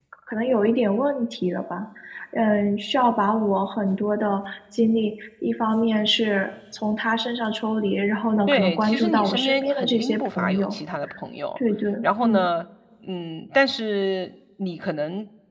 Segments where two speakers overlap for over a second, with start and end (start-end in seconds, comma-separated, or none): 8.4-10.8